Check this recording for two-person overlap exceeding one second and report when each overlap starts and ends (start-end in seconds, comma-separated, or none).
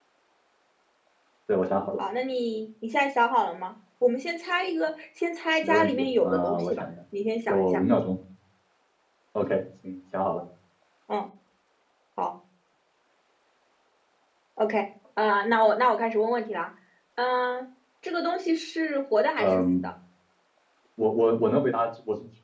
5.6-6.8